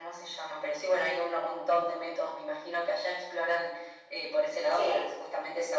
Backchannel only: Yes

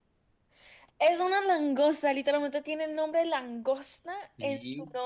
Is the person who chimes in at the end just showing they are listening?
No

